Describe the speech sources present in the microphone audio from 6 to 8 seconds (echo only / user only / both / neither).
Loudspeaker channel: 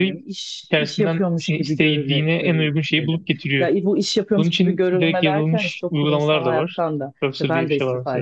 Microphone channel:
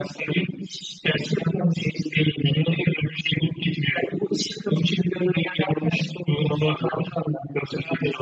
echo only